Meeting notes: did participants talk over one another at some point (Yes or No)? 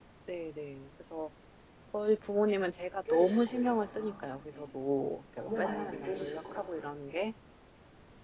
Yes